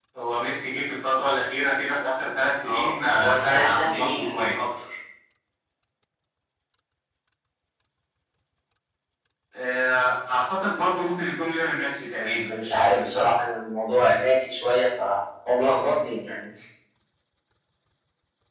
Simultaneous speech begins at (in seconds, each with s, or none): 2.6 s